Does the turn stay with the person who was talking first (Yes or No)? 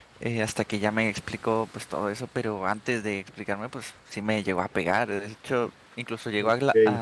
Yes